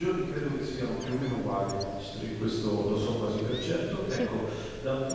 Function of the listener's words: listening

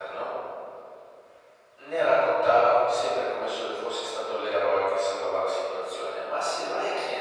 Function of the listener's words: listening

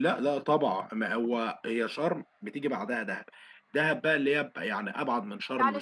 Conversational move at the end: taking over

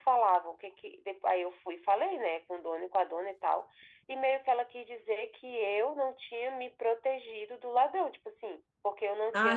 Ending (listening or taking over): taking over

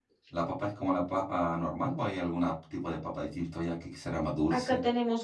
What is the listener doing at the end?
taking over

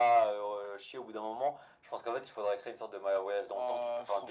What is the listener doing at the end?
taking over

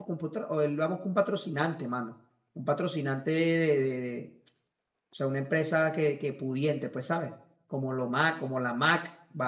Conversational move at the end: listening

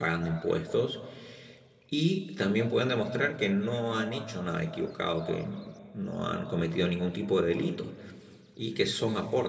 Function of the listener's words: listening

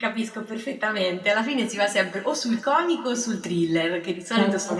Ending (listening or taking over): listening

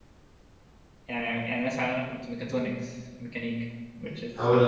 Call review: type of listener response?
taking over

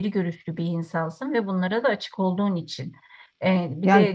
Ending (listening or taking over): listening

